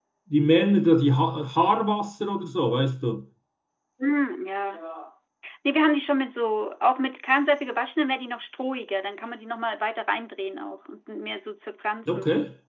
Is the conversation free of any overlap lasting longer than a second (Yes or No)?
Yes